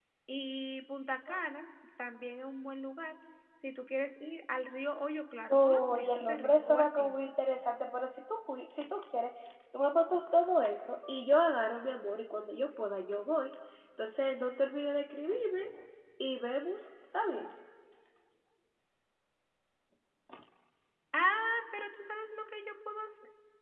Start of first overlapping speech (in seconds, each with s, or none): 5.5 s